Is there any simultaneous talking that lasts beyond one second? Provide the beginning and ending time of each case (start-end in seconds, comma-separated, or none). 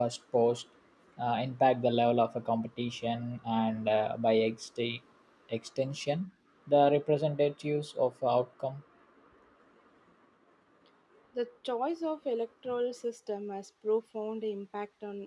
none